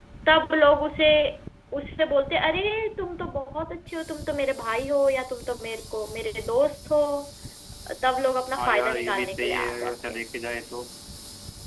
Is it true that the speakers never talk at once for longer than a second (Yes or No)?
No